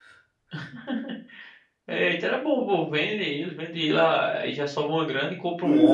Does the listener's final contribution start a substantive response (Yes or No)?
Yes